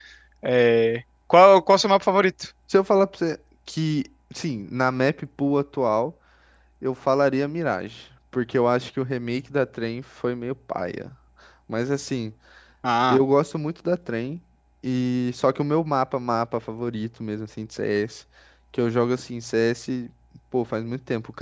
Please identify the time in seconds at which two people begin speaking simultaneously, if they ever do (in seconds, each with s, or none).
none